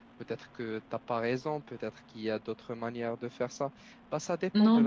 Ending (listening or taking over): taking over